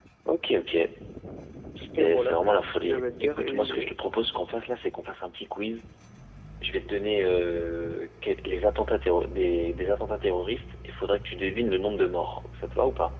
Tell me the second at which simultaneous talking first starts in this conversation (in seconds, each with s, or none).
2.0 s